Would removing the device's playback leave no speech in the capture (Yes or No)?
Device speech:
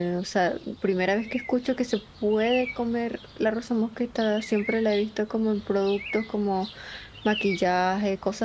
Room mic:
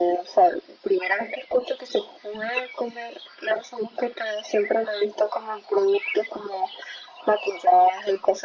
Yes